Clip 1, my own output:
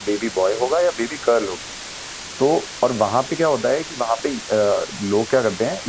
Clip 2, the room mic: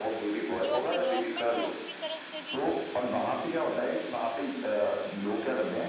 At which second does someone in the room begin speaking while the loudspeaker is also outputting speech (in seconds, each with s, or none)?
0.5 s